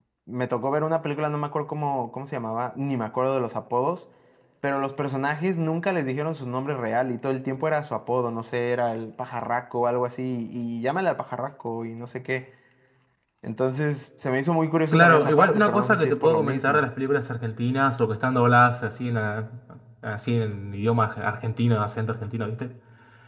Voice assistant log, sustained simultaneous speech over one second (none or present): present